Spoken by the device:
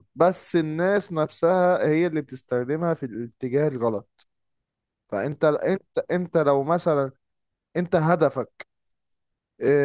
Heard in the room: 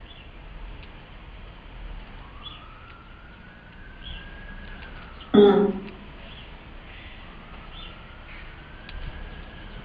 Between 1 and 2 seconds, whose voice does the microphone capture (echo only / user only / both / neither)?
neither